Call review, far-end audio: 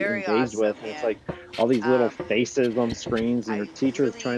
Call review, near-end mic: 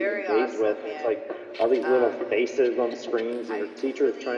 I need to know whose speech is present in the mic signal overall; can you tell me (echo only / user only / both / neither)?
echo only